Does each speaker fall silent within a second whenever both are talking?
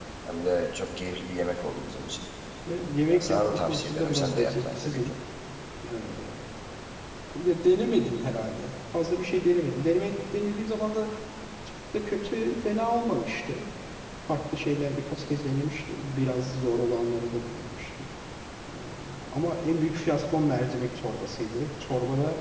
No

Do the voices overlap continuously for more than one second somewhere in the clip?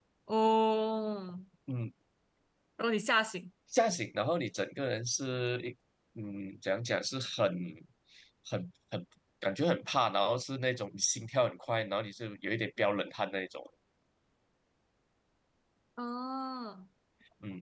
No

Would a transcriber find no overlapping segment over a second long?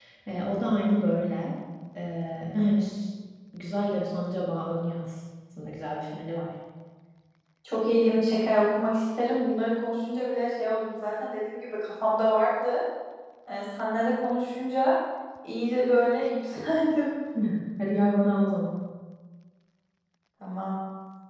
Yes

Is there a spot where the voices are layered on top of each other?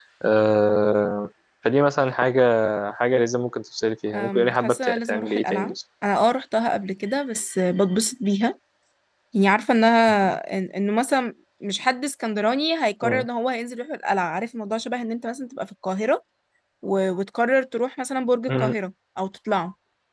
Yes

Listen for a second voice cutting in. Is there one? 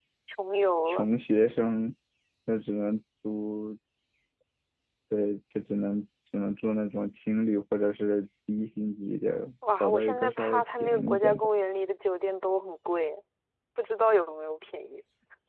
Yes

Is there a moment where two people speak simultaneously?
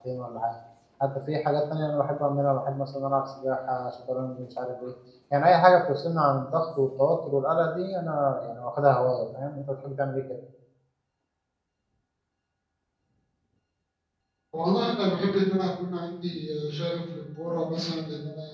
No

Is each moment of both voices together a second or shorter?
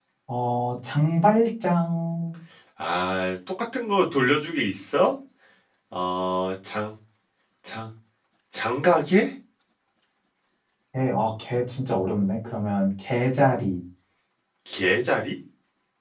Yes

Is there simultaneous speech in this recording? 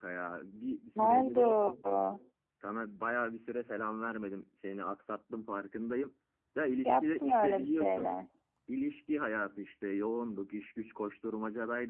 Yes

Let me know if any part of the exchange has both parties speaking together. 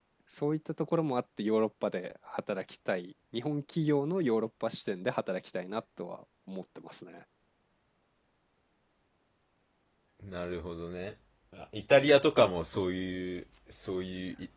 No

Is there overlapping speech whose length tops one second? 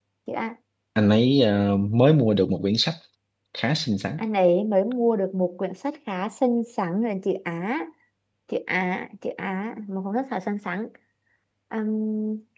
No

